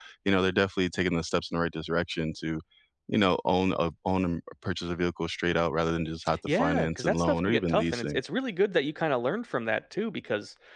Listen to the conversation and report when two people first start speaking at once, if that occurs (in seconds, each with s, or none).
6.5 s